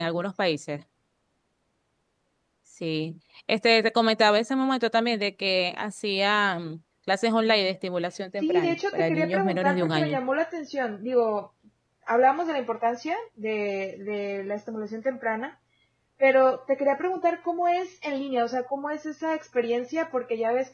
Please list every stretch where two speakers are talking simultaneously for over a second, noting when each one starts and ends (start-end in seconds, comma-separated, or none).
8.4-10.2